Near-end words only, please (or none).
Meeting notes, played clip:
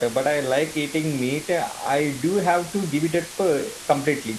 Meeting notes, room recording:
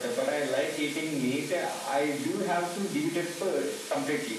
none